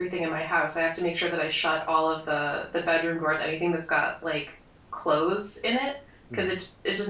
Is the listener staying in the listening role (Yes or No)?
Yes